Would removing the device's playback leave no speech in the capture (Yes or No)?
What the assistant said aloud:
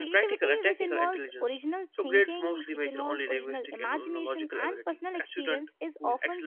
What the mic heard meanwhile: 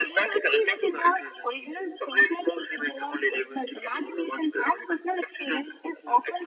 Yes